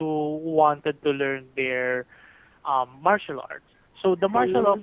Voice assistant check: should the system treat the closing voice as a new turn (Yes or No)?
No